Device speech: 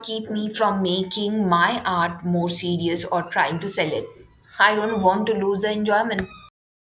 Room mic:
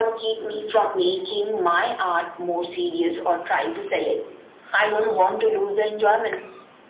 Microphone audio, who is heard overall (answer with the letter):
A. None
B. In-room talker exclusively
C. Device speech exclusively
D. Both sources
C